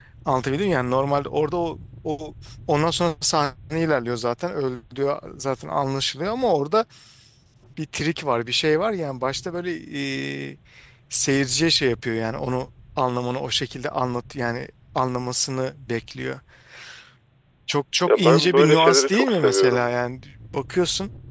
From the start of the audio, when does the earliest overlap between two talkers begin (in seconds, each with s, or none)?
18.1 s